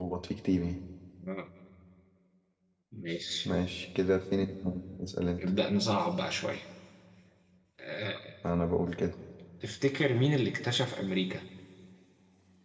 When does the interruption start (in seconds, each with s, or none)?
none